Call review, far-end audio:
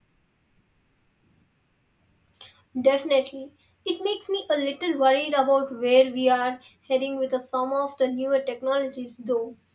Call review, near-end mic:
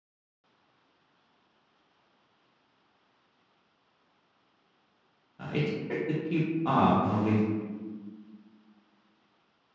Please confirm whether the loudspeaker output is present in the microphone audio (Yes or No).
No